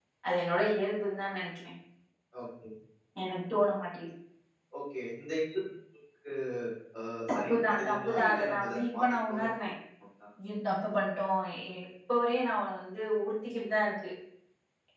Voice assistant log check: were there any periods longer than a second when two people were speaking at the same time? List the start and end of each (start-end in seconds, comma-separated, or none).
7.3-9.5